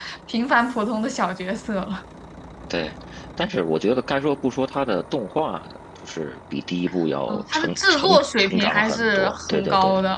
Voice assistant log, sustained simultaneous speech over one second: present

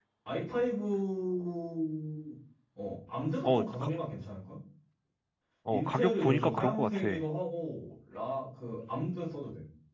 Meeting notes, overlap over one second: present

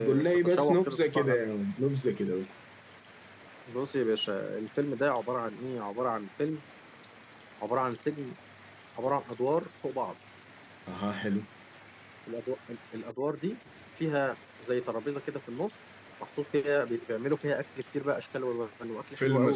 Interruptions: present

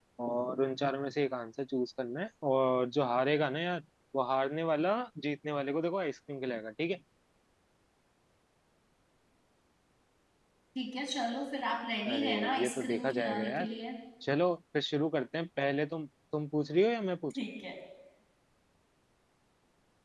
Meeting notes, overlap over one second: present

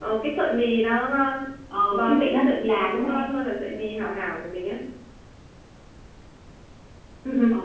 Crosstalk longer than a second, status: present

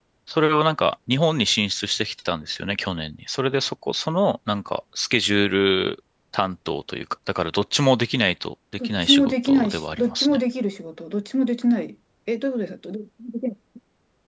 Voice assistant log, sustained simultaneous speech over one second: present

